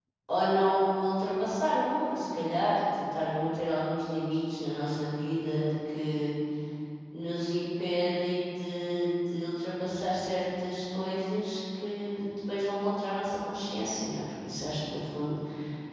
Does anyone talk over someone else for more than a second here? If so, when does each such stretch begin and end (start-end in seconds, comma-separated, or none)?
none